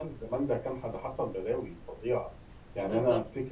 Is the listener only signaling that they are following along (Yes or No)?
Yes